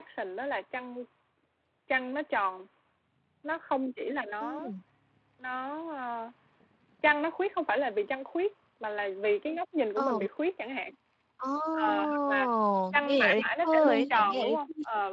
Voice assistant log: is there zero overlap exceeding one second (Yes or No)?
No